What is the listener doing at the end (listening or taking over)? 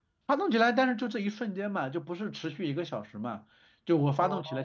listening